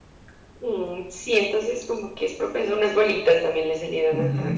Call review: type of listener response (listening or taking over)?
taking over